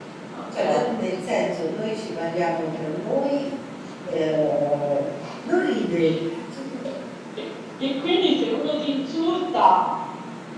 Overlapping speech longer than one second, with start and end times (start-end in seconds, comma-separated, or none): none